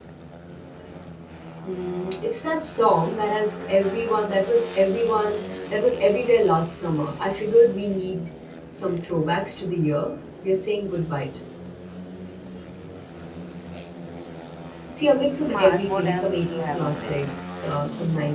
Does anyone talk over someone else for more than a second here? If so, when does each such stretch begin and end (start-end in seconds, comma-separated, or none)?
15.3-17.2